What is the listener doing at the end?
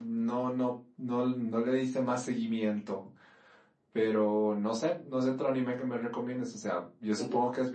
listening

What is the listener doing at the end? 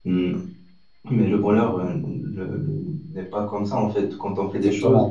listening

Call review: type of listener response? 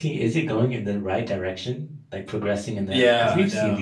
taking over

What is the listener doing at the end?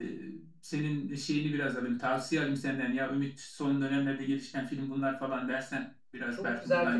taking over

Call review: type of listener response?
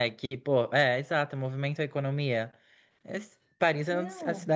listening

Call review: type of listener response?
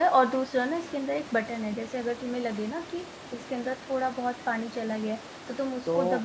listening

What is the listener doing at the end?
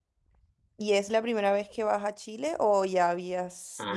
taking over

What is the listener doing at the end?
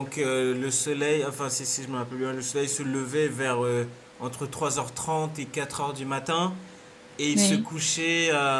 listening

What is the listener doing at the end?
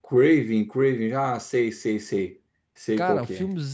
taking over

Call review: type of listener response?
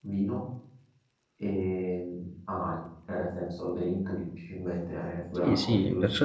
taking over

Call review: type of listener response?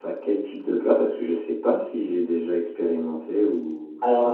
taking over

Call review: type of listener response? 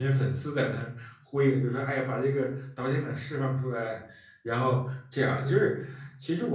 listening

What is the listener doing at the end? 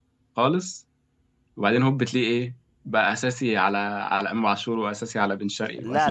taking over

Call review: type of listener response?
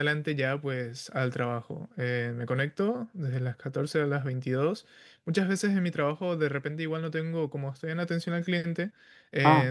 listening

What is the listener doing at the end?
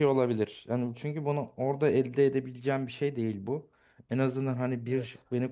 listening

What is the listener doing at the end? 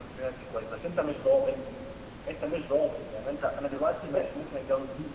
listening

